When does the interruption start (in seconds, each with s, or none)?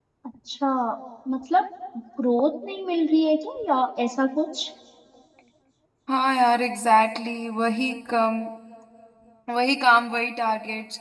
none